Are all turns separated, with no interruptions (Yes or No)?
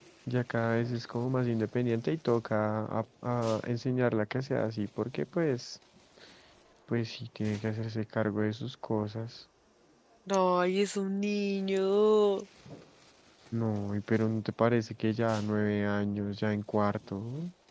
Yes